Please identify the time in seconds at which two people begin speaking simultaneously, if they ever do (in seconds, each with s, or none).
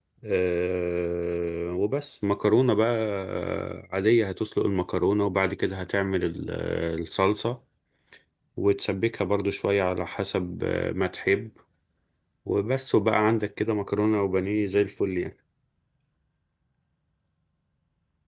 none